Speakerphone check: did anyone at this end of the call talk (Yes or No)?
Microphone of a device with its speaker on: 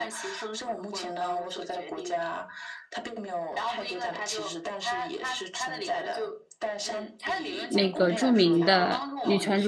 Yes